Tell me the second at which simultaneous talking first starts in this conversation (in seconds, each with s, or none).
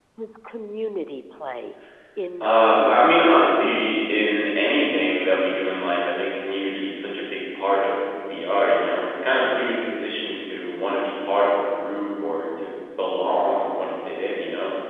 2.4 s